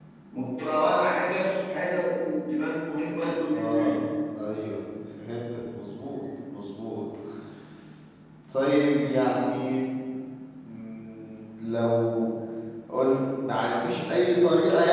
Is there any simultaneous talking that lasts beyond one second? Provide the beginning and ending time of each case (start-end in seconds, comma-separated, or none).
none